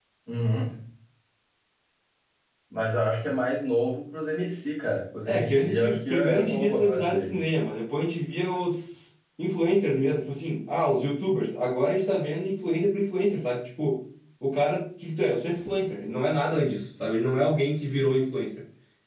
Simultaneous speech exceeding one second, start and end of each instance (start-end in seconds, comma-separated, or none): 5.2-7.4